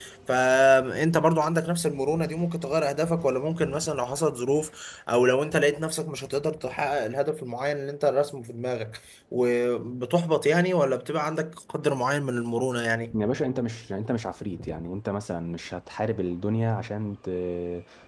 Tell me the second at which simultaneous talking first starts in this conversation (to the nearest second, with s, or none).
none